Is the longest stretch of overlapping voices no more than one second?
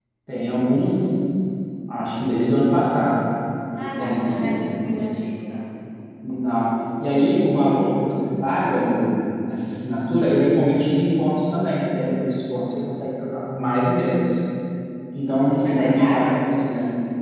No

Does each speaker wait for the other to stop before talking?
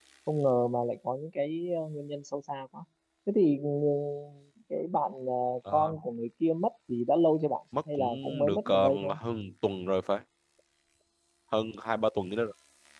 No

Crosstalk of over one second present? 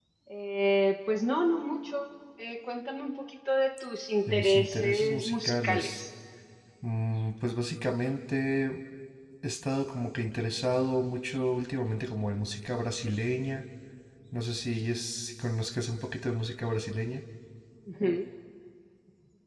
Yes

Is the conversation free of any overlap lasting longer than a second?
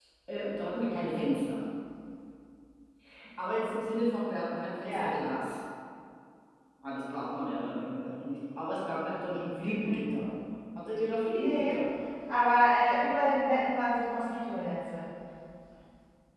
Yes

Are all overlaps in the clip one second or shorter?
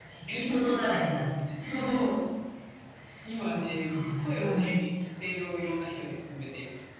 No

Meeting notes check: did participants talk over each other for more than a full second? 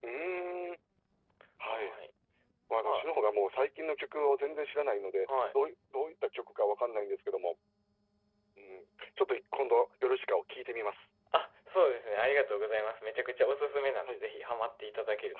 No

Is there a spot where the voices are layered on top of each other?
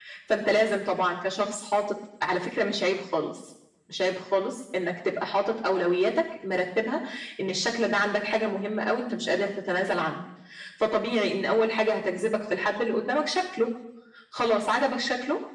No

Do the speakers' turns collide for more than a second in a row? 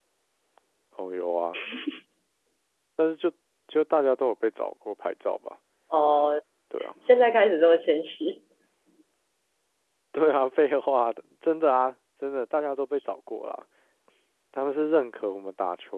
No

